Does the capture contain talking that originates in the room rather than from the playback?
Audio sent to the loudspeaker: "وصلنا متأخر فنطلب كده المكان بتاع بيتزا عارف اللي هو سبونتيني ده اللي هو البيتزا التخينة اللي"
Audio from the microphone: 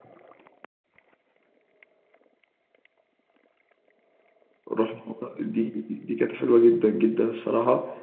Yes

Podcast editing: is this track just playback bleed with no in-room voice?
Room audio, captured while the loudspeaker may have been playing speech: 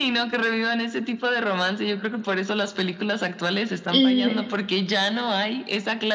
No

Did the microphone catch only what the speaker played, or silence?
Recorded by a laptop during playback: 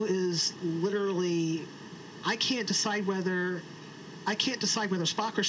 Yes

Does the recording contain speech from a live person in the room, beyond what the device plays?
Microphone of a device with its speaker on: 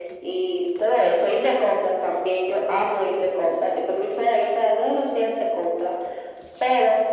No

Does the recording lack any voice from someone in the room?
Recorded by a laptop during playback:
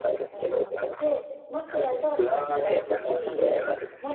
No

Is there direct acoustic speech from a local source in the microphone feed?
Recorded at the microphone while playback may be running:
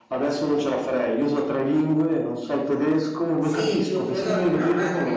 Yes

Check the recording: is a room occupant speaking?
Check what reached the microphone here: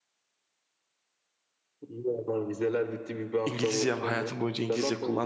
Yes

